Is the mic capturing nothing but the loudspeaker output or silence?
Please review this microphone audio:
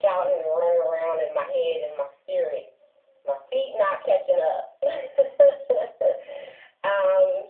Yes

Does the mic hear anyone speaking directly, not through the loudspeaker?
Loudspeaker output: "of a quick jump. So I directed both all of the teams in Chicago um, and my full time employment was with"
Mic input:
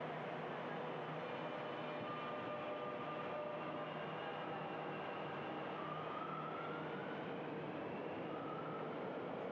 No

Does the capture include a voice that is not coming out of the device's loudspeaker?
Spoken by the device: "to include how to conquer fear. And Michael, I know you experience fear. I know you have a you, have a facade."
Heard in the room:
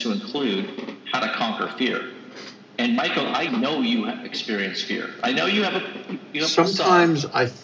Yes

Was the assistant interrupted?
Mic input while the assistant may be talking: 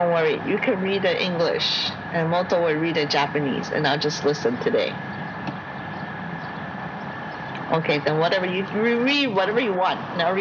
No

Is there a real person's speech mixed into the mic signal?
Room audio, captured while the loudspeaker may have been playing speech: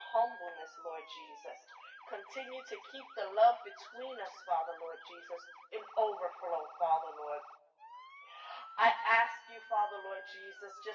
No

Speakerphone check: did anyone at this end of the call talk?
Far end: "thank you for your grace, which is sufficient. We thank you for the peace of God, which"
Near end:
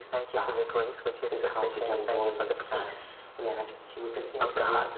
Yes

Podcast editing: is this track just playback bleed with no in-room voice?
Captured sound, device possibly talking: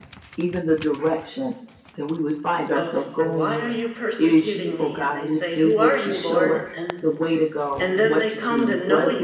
No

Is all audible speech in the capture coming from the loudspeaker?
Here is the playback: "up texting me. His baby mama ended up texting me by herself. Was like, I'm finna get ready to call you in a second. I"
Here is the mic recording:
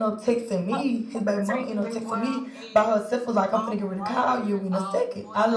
No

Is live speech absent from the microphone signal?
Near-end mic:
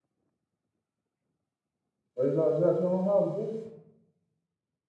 No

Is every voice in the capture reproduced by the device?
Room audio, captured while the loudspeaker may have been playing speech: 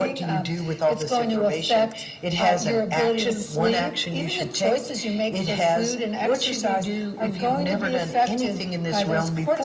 Yes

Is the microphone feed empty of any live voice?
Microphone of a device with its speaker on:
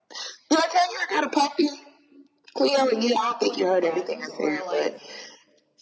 No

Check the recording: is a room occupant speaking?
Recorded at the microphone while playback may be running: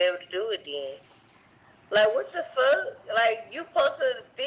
No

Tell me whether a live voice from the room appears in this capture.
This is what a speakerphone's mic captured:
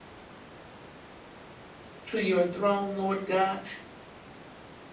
Yes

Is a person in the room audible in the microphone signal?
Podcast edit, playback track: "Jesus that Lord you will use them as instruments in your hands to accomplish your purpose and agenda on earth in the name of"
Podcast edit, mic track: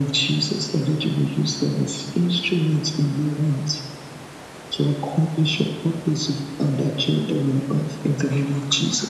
No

